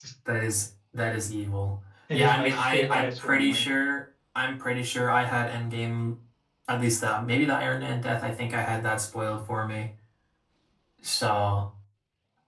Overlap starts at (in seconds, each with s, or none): 2.1 s